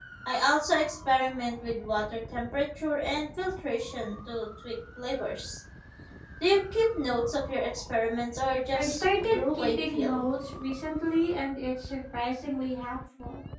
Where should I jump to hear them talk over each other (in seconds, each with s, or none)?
8.7 s